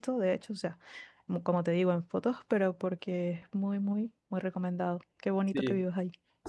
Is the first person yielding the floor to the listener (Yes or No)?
Yes